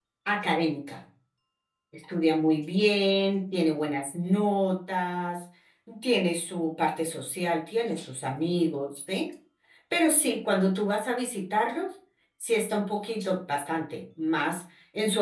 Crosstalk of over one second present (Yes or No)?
No